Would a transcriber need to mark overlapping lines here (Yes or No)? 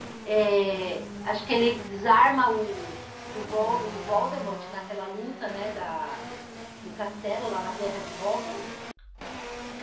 No